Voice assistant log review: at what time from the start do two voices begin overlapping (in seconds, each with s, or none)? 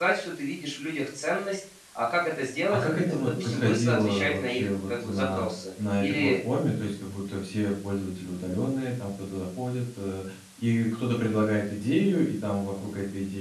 2.5 s